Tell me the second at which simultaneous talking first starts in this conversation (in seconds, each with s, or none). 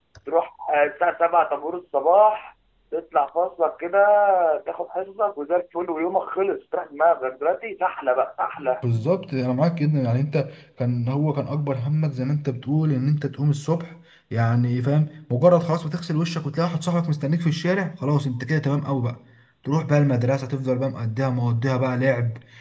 none